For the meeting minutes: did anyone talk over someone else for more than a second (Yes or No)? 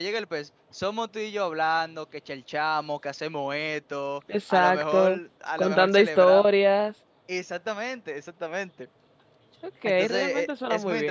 Yes